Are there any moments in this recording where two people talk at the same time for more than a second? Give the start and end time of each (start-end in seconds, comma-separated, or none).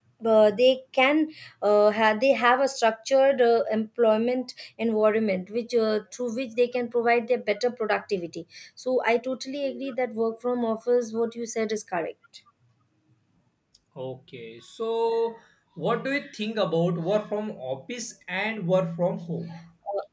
none